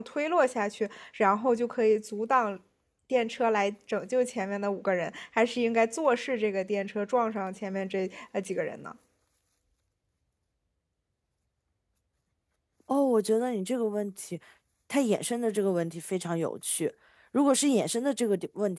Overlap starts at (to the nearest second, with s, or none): none